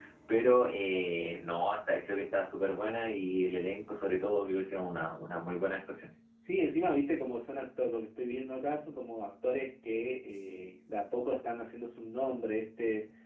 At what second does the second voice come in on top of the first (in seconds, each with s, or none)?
none